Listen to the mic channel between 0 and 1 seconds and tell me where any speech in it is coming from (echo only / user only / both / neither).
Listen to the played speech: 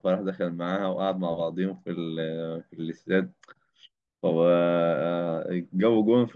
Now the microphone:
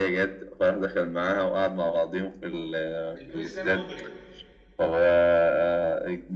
echo only